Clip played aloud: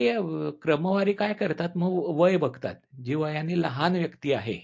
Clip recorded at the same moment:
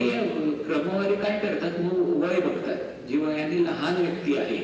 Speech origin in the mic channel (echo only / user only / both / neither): echo only